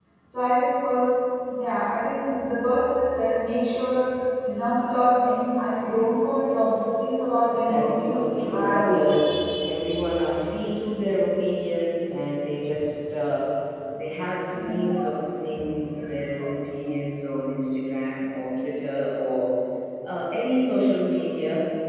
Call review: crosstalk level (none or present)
present